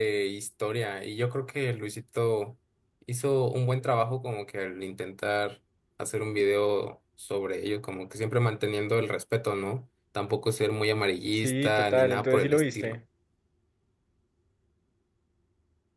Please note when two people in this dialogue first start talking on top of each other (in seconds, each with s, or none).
11.4 s